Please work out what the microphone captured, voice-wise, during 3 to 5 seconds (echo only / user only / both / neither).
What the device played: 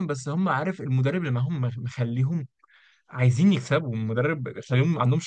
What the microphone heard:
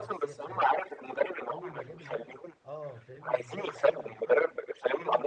both